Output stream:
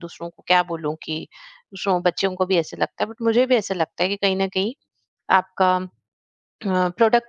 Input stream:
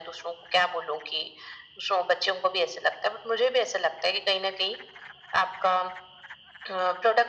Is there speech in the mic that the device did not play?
No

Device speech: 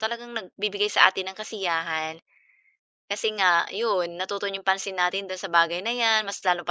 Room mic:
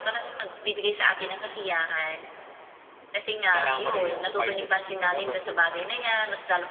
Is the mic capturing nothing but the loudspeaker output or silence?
No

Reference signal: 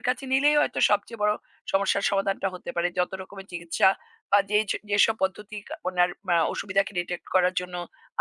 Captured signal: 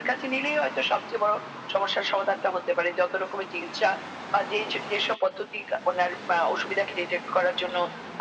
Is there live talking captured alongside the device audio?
No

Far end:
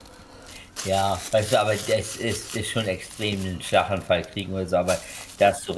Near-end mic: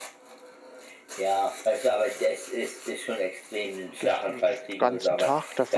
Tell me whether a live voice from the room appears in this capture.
Yes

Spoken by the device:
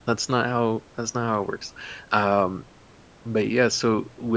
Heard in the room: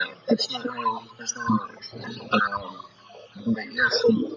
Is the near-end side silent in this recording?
Yes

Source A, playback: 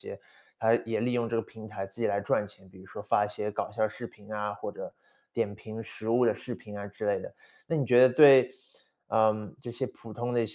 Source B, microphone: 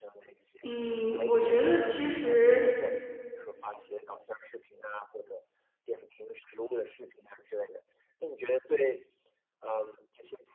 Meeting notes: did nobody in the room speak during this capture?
No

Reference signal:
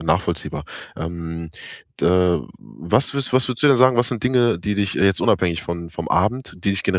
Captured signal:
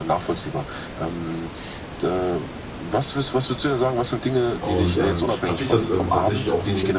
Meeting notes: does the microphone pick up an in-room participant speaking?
Yes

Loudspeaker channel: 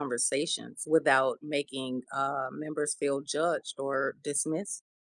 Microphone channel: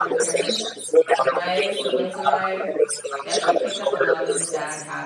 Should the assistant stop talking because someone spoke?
Yes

